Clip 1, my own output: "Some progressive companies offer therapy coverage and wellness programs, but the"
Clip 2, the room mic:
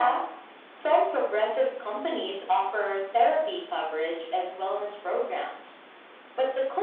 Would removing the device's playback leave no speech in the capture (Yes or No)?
Yes